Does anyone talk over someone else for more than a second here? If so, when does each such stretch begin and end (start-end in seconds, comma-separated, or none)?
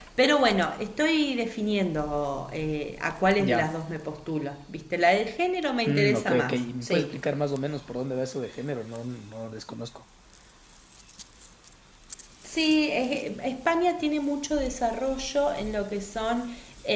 5.8-7.2